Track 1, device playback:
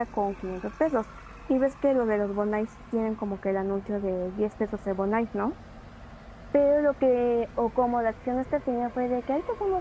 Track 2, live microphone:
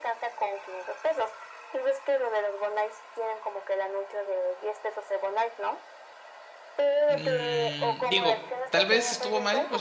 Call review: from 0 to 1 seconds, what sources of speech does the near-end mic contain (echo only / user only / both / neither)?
echo only